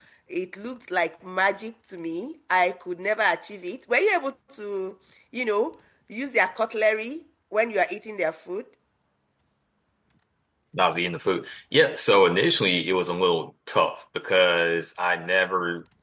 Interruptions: none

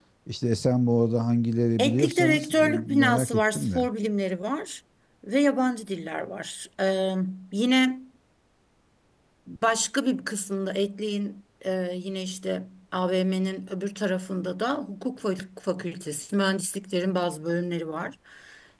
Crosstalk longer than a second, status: present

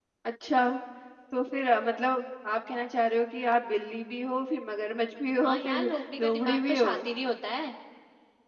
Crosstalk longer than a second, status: present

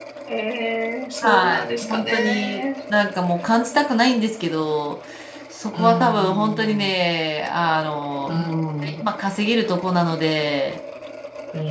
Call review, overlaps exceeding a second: present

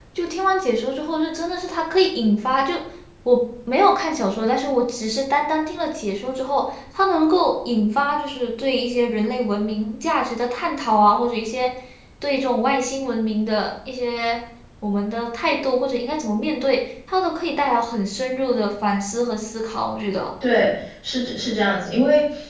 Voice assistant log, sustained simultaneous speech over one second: none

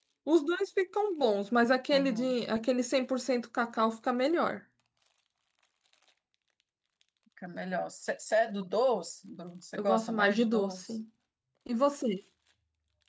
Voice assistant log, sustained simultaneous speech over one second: present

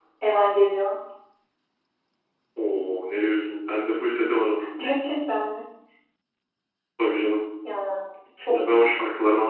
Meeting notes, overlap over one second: none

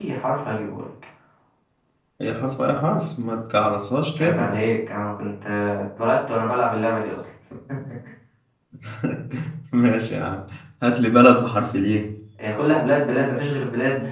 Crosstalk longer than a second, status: none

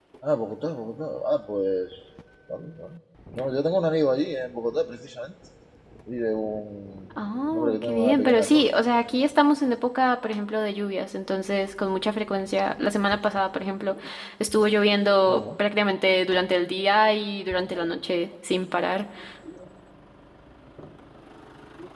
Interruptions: present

